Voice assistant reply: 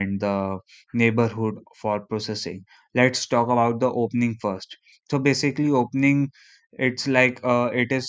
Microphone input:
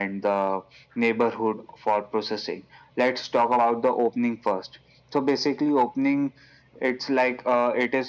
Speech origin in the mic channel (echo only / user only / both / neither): echo only